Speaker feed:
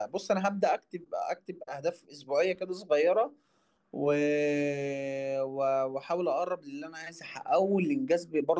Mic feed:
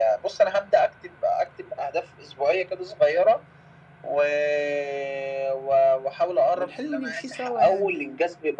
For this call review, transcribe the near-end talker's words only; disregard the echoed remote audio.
والحلم نمشي سوا يعني

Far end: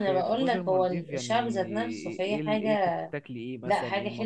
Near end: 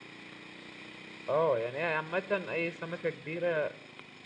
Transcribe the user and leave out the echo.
اه يعني هي عامة اي سمكة كبيرة

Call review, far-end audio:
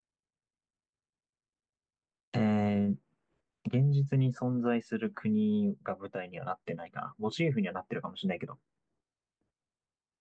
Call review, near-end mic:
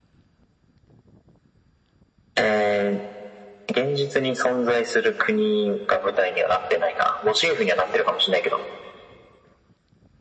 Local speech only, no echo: none

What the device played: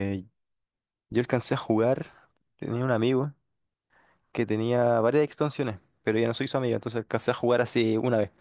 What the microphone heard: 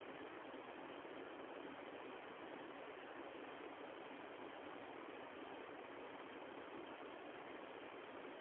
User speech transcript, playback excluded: none

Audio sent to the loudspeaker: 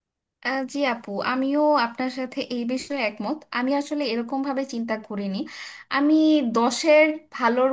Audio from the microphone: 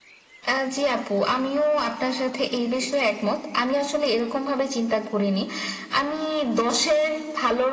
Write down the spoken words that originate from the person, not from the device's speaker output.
none

